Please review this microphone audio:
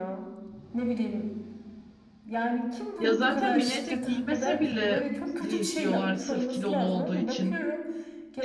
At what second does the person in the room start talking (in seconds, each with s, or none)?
3.0 s